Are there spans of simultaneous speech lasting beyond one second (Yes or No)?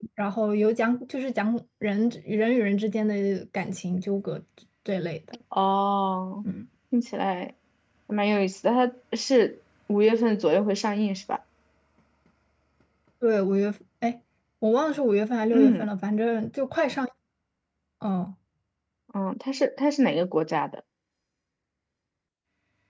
No